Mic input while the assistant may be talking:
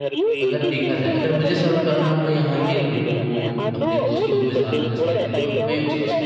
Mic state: both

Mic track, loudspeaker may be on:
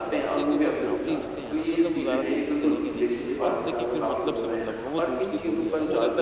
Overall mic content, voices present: both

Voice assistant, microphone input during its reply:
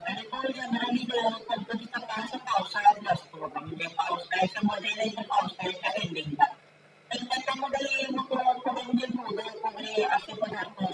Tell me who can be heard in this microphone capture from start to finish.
echo only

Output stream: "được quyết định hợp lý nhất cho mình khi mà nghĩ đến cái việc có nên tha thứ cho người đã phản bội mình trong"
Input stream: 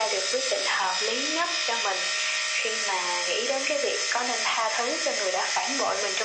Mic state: echo only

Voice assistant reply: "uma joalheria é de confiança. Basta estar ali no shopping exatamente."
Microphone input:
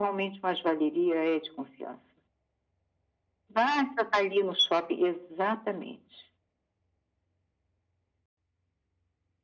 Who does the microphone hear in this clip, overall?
echo only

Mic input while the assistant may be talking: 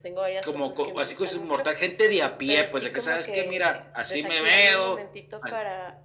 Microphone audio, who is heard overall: echo only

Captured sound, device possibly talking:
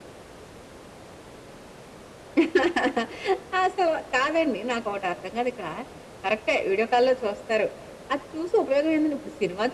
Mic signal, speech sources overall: echo only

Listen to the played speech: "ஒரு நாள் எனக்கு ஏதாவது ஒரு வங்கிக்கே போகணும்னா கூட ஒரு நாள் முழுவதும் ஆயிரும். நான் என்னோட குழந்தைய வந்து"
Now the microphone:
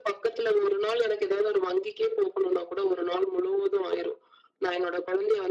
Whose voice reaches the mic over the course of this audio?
echo only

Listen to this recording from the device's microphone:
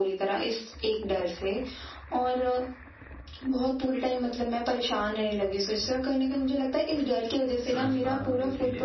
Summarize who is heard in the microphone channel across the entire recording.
both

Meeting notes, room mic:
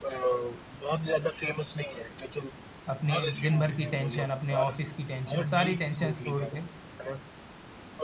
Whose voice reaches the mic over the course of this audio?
both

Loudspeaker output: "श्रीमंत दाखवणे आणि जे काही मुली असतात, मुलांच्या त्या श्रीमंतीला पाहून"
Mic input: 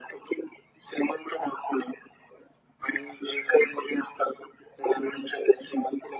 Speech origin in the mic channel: echo only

